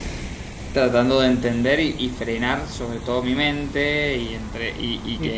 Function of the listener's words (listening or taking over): listening